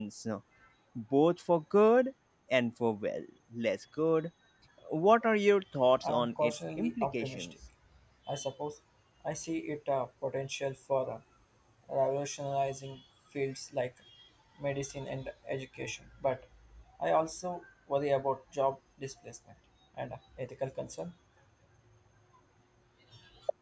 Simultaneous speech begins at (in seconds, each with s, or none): 6.0 s